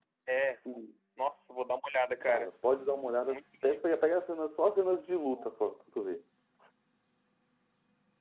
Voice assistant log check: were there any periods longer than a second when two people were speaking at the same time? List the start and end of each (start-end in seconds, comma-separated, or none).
none